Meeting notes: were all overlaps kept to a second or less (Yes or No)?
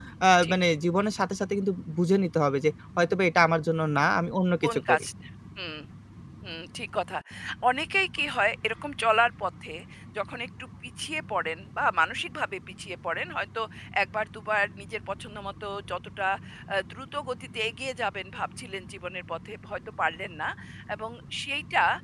Yes